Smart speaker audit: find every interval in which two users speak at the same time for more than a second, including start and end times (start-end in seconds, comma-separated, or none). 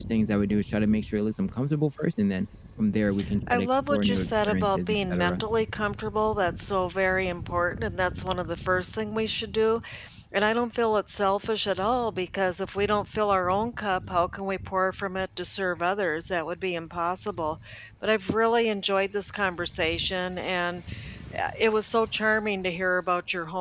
3.5-5.4